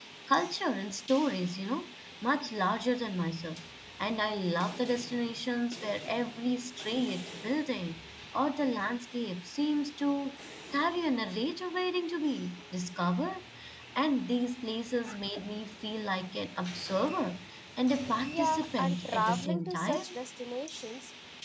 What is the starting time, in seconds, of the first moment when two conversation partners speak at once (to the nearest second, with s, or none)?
18 s